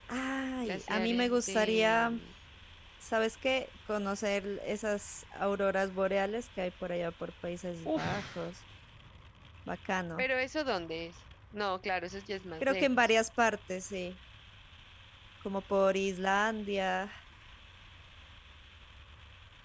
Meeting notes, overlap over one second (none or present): present